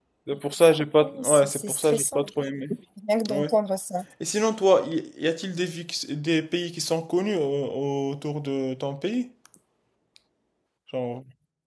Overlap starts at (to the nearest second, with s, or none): 1 s